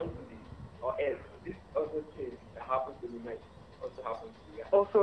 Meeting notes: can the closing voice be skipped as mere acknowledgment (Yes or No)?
No